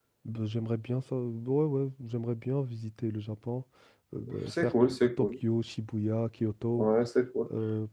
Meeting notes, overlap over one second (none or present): none